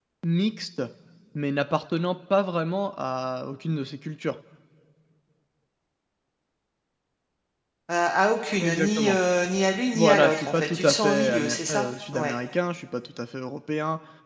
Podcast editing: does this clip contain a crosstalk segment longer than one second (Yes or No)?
Yes